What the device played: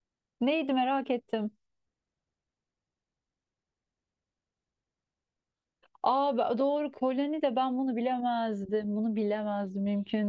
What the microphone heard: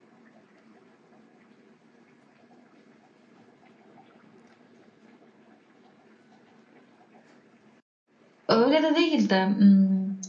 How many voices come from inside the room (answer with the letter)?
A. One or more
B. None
A